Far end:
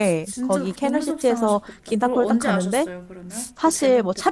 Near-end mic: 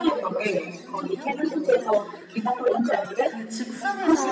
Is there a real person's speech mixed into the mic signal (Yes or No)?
Yes